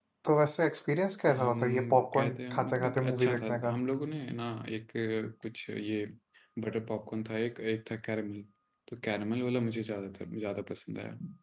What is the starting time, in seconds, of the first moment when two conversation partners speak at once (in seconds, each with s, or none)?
1.3 s